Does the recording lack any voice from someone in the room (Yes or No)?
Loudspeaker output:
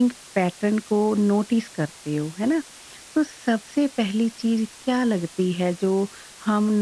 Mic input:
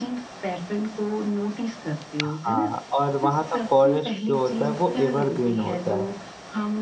No